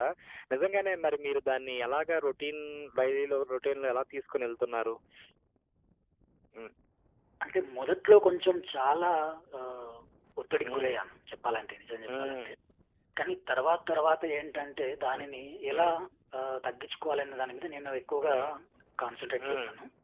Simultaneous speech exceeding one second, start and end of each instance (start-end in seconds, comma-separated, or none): none